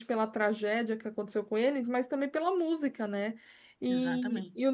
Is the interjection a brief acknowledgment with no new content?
Yes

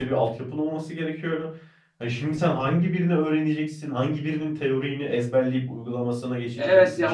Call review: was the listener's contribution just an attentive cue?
No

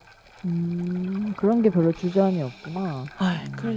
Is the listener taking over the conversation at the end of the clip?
Yes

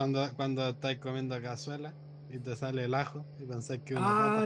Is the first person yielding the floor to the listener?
Yes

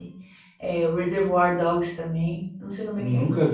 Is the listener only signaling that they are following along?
No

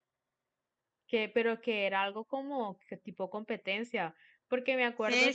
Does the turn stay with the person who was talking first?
No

